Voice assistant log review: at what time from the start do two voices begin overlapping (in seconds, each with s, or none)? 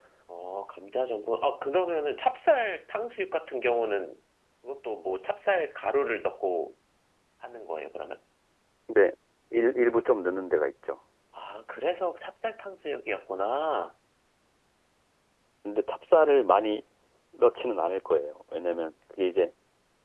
none